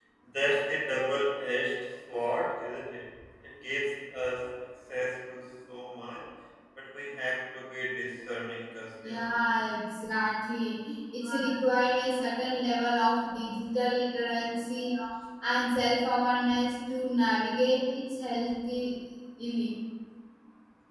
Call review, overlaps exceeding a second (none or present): none